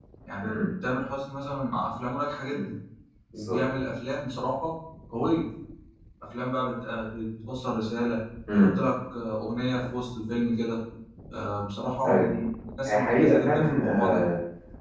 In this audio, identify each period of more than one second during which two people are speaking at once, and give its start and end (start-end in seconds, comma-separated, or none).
12.9-14.2